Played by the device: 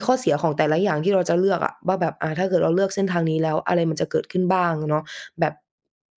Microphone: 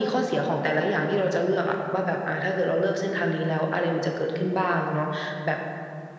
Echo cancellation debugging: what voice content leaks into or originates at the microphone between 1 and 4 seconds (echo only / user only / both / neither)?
echo only